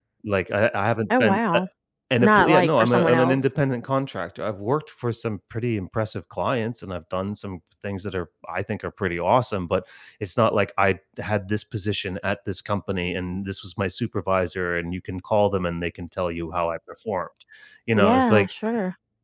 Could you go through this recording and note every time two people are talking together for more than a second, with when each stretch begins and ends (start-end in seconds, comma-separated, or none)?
2.2-3.4